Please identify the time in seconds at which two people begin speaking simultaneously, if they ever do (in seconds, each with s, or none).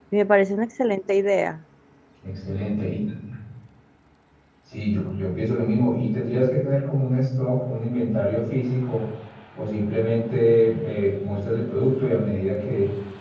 none